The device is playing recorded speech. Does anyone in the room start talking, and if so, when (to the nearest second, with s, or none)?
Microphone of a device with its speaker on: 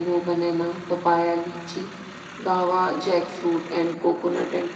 none